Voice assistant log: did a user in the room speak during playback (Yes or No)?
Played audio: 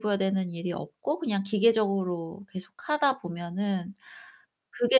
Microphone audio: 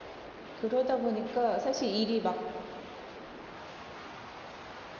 Yes